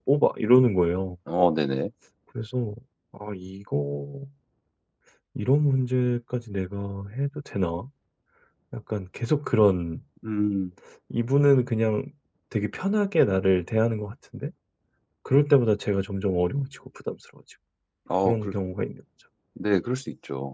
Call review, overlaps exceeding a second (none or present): none